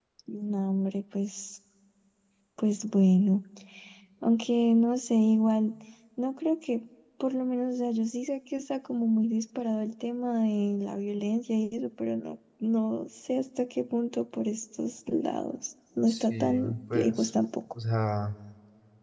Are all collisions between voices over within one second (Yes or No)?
No